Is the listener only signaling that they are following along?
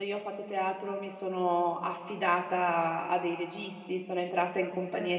Yes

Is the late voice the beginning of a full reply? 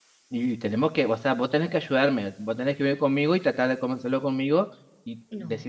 No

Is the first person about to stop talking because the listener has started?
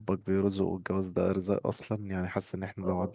No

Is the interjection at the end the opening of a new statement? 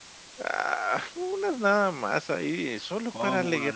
Yes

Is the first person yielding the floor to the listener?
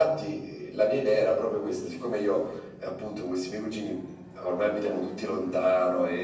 No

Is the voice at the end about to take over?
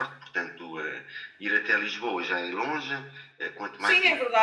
Yes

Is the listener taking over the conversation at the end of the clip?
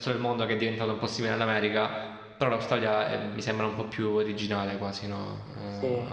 Yes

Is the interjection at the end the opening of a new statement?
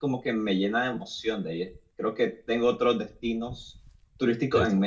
Yes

